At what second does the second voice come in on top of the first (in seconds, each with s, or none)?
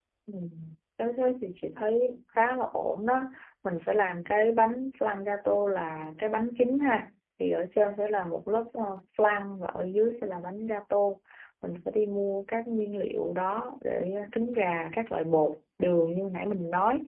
none